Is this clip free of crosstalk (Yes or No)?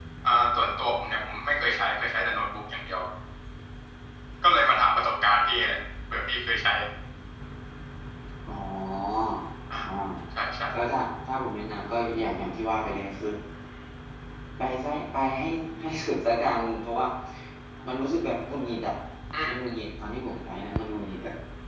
Yes